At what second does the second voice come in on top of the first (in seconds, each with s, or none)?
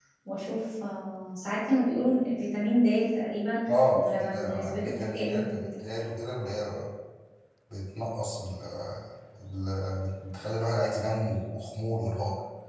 3.9 s